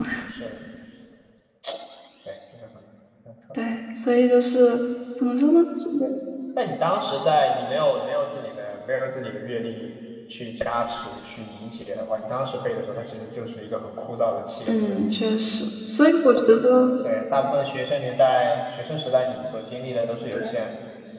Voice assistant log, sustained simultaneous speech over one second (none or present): none